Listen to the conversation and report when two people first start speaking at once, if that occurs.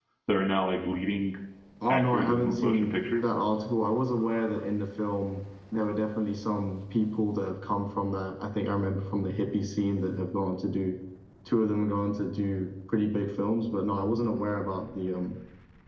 2 s

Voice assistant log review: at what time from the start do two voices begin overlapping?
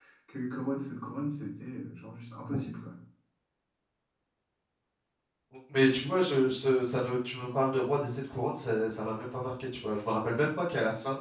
none

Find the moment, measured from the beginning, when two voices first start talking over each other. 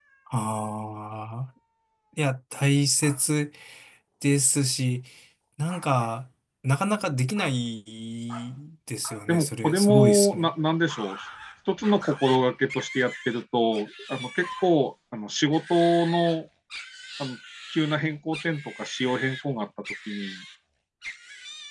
9 s

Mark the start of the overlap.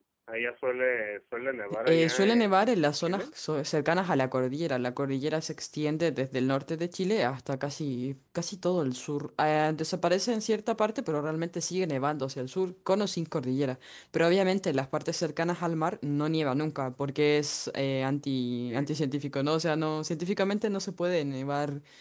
2 s

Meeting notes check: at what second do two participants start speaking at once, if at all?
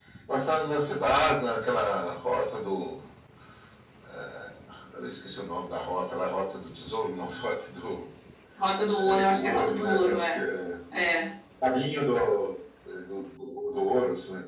9 s

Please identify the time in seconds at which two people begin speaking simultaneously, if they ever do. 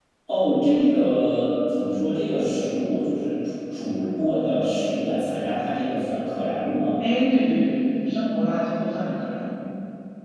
none

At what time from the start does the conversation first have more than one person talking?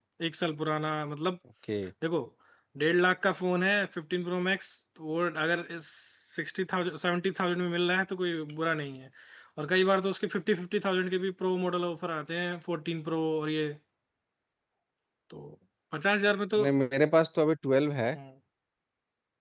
none

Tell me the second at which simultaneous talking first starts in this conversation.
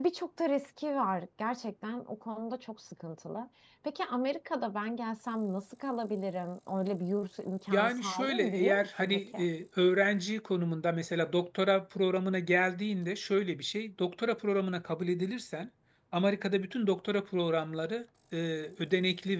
8 s

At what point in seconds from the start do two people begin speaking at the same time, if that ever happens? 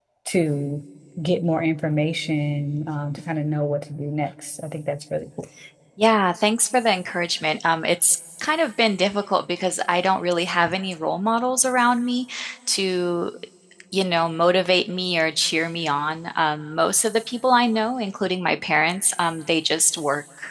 none

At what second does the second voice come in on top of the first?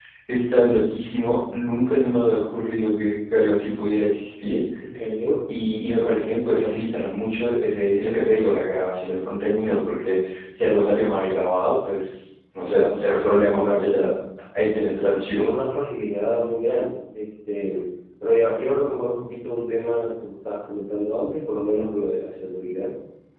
13 s

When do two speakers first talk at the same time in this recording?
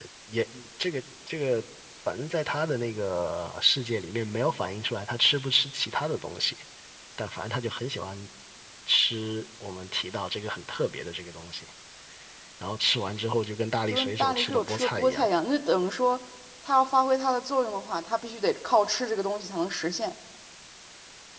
14 s

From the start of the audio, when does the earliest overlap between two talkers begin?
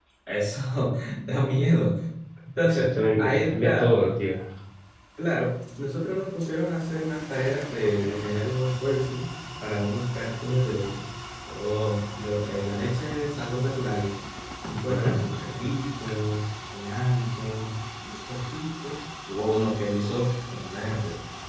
3 s

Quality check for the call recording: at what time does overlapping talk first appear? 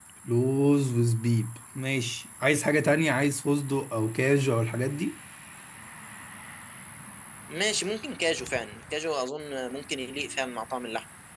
none

